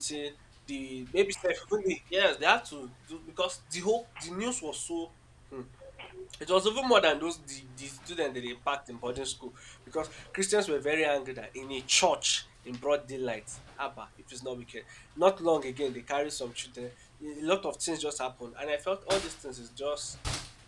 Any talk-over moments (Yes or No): No